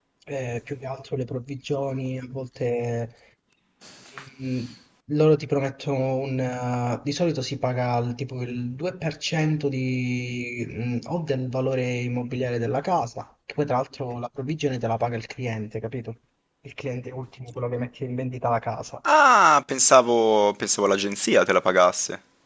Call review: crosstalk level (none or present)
none